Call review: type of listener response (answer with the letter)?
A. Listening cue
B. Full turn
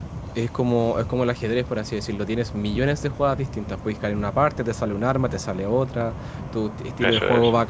A